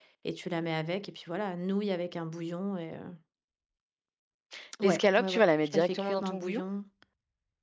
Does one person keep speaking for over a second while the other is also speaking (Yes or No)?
Yes